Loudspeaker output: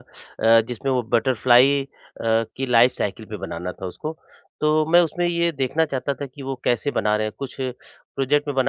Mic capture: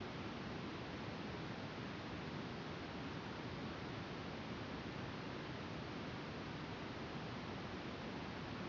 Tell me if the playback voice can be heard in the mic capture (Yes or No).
No